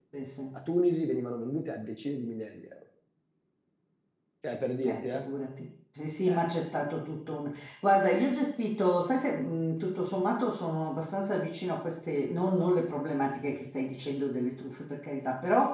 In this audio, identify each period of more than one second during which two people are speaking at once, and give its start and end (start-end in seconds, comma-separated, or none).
none